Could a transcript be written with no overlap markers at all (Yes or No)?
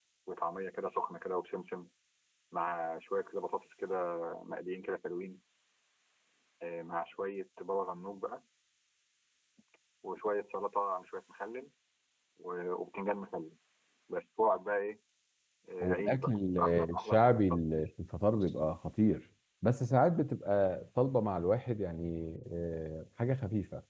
No